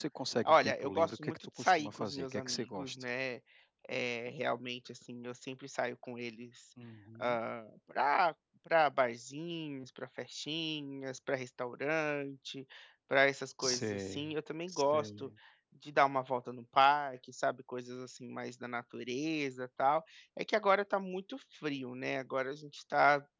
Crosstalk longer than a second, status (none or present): present